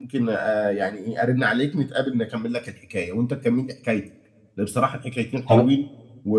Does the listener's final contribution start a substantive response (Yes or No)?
No